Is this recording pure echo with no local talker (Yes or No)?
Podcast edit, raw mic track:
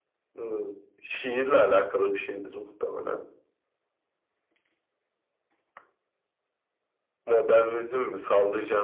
Yes